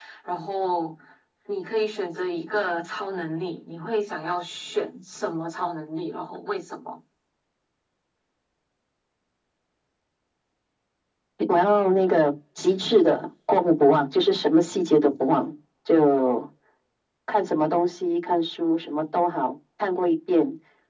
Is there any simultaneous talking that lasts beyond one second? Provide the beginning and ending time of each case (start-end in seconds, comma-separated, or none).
none